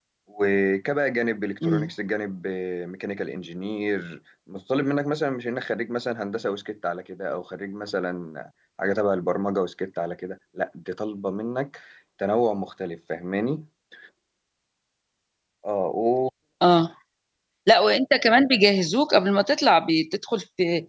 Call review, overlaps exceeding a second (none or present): none